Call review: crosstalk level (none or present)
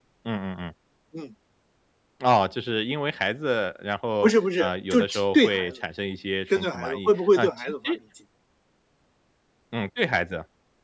present